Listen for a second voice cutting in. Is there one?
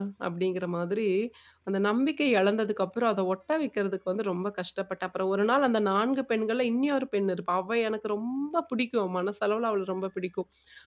No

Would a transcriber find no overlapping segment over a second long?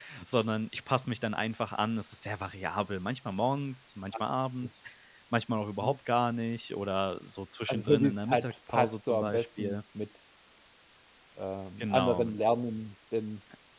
No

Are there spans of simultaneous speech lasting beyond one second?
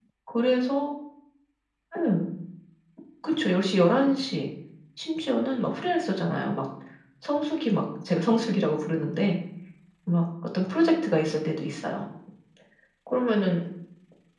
No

